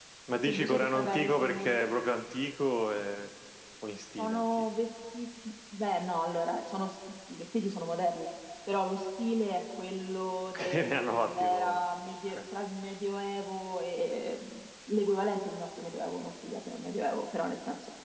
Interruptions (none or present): present